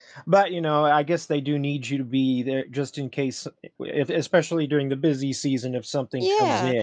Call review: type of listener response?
taking over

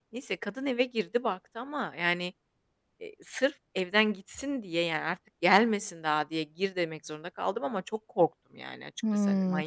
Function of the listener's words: taking over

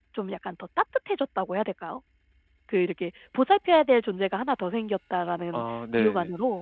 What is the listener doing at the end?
listening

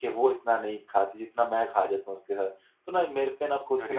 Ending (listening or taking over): listening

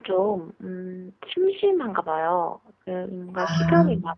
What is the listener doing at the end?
listening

